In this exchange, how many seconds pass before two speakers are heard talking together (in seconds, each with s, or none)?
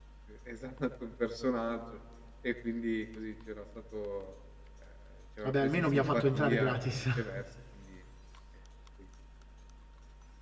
5.4 s